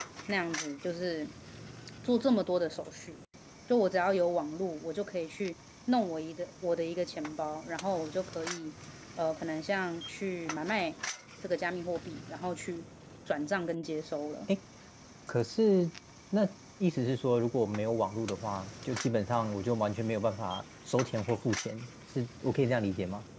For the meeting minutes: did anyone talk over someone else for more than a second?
No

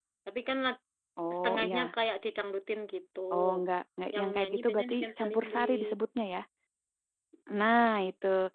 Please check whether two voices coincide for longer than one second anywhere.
Yes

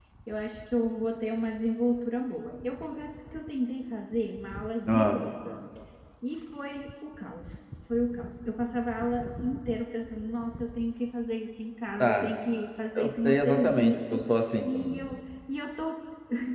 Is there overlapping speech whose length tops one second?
Yes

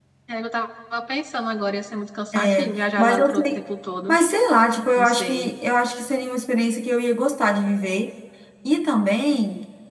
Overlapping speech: Yes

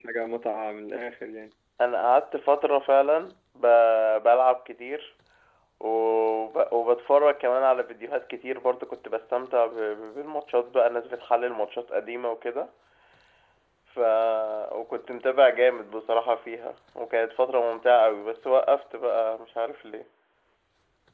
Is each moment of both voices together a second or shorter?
Yes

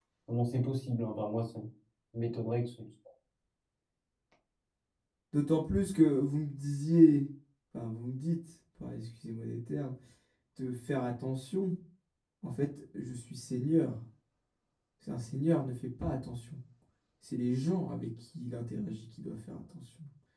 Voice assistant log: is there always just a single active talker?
Yes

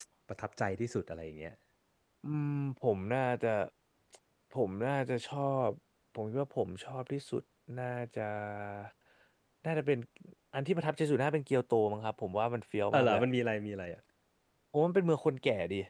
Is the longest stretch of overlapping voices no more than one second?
Yes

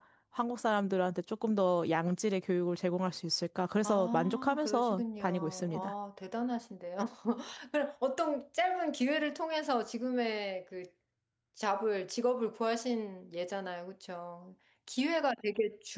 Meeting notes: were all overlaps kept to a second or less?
No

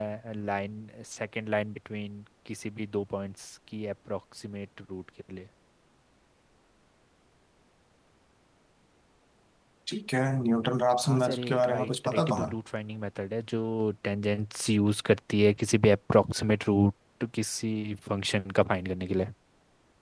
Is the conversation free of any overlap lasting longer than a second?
No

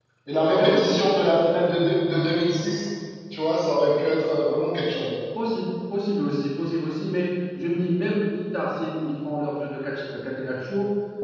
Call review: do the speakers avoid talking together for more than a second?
Yes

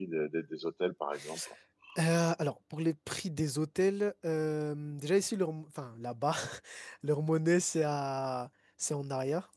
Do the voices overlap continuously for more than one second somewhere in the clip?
No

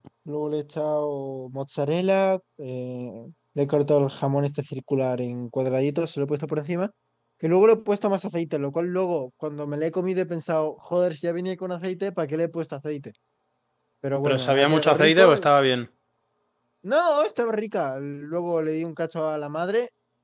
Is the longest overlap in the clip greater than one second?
Yes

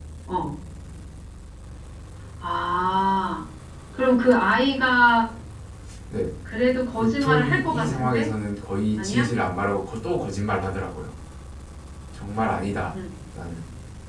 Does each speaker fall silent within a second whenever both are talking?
No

